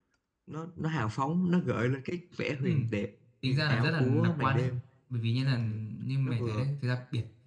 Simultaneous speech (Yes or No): Yes